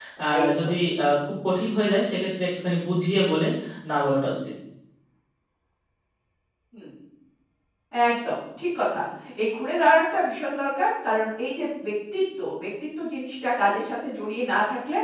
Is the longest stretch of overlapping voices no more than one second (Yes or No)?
Yes